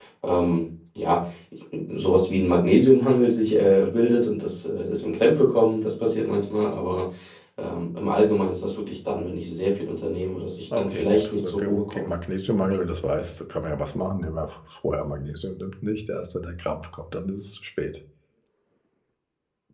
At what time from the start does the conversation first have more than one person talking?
10.7 s

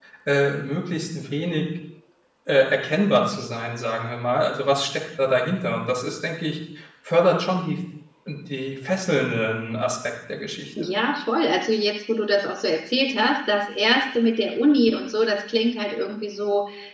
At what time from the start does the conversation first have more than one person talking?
none

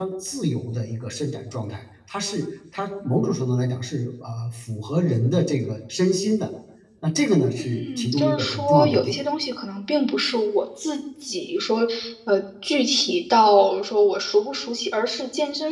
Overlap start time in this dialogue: 7.6 s

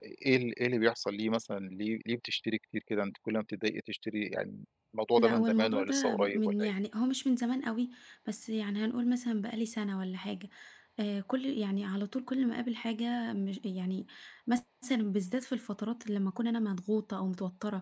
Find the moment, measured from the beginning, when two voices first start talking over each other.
5.2 s

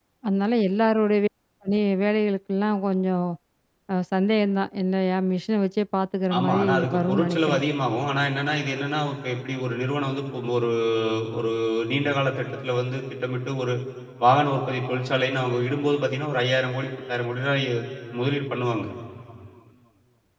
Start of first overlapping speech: 6.3 s

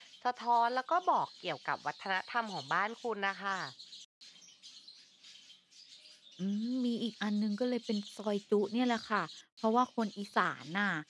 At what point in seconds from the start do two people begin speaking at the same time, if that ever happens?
none

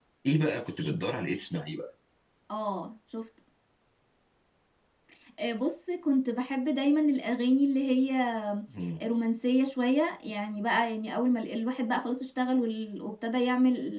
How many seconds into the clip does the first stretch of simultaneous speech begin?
none

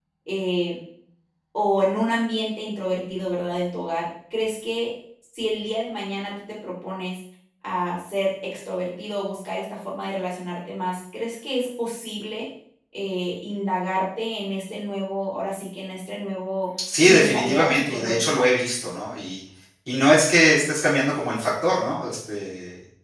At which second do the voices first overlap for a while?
16.9 s

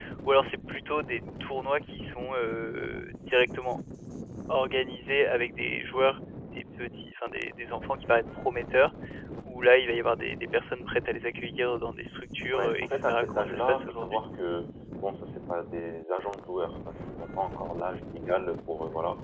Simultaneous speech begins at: 12.5 s

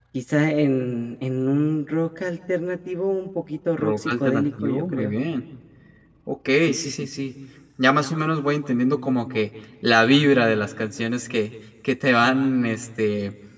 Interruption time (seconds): 3.8 s

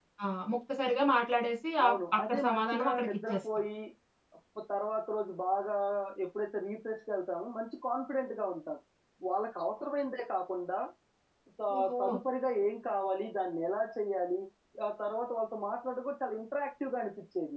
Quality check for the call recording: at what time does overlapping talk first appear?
1.8 s

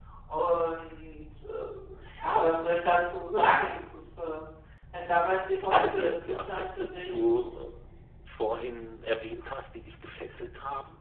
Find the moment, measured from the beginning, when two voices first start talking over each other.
5.7 s

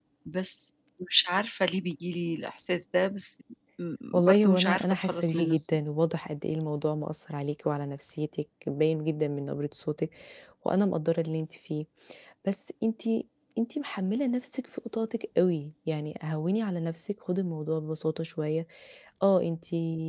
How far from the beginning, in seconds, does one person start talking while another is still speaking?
4.1 s

